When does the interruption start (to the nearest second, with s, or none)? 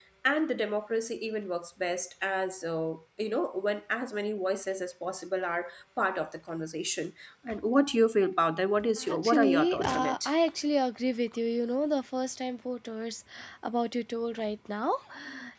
9 s